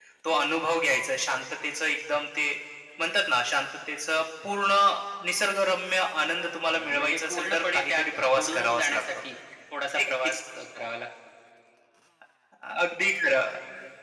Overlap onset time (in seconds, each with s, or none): 6.7 s